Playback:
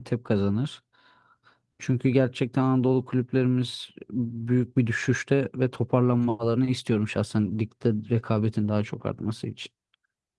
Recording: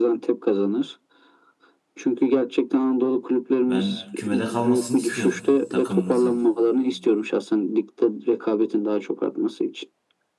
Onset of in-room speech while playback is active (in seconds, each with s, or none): 3.6 s